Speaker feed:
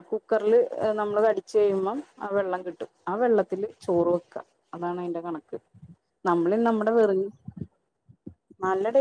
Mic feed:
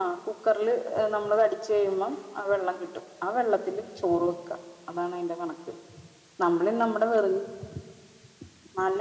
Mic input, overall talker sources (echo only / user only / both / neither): echo only